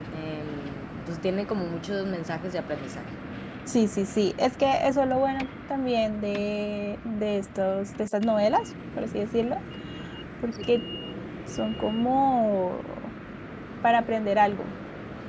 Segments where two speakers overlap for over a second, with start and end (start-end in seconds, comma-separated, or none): none